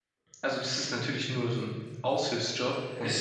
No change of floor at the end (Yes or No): Yes